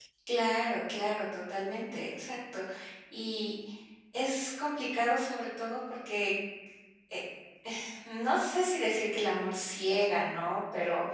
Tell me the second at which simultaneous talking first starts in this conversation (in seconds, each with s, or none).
none